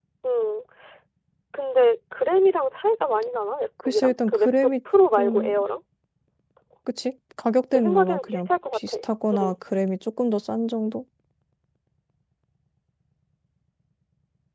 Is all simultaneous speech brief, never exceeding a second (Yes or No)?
No